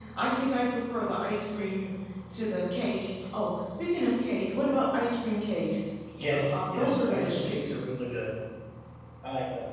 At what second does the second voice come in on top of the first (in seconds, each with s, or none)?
6.2 s